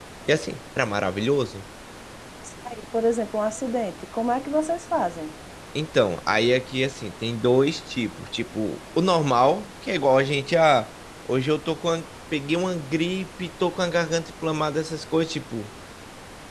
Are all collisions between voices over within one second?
Yes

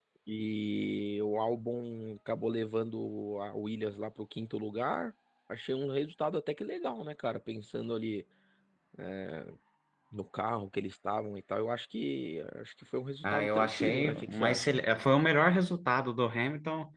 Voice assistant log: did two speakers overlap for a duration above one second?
Yes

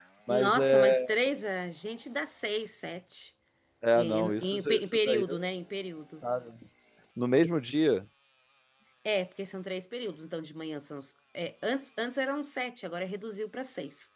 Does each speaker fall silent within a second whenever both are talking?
No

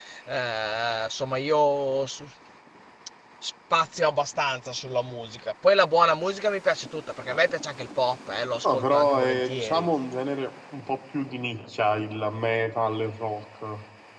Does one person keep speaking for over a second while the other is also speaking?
Yes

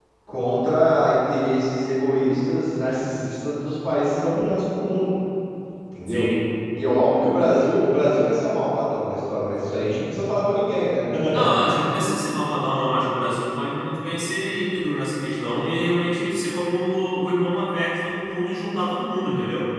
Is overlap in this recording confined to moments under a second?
Yes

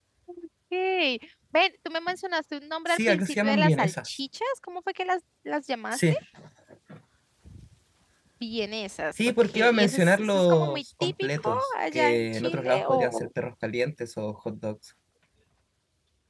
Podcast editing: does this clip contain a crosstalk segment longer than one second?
Yes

